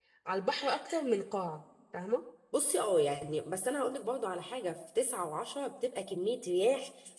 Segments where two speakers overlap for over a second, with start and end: none

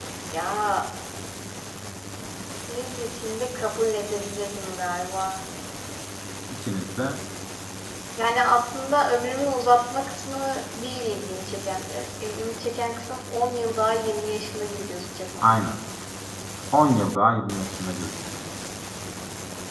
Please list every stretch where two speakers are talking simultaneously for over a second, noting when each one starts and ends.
none

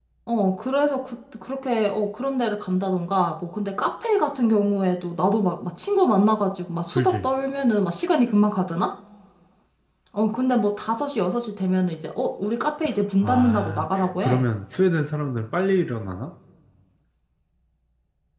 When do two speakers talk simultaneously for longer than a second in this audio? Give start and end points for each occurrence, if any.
13.2-14.4

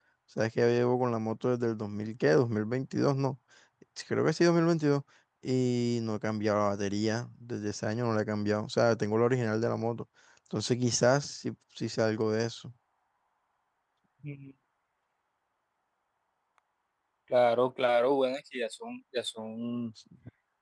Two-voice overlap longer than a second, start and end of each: none

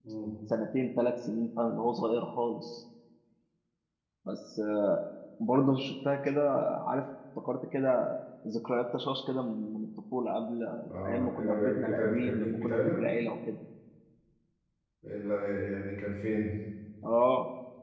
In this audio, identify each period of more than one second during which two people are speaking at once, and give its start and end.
11.1-13.0

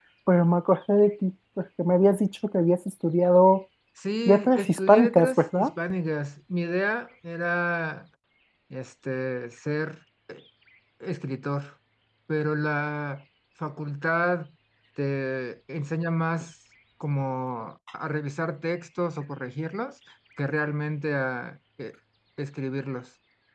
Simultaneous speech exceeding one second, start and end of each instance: 4.2-5.7

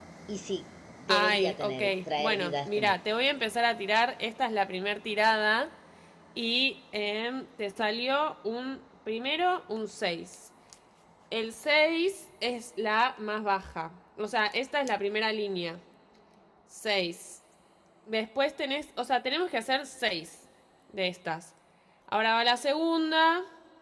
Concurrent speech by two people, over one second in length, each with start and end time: 1.1-3.0

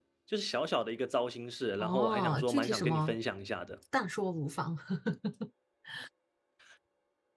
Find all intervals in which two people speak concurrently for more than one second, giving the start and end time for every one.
1.8-3.2

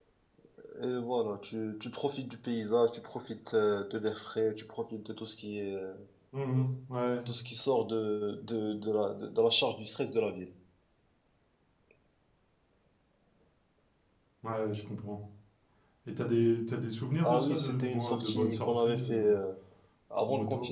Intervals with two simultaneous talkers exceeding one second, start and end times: 17.2-19.3

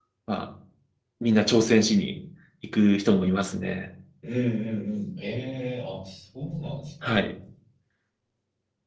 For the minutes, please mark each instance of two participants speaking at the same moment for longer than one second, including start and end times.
none

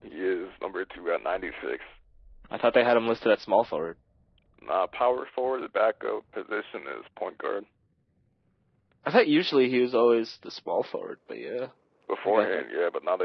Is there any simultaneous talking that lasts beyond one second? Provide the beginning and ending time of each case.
none

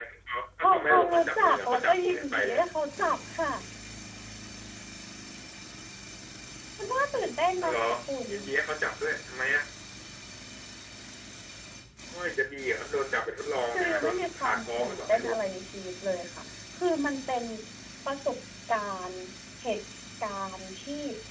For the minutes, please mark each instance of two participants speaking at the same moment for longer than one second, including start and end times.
0.6-2.6, 13.7-15.3

